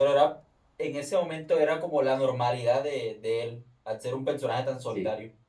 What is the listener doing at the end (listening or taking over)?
taking over